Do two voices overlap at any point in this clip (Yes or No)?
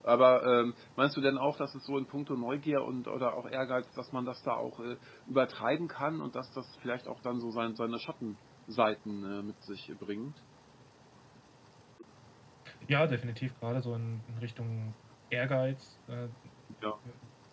No